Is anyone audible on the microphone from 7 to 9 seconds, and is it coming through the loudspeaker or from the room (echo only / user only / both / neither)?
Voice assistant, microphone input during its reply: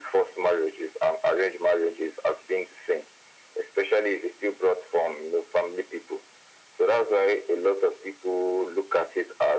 echo only